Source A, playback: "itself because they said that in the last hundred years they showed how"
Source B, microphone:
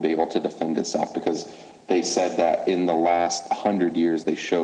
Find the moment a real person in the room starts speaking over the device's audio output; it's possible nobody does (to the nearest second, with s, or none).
none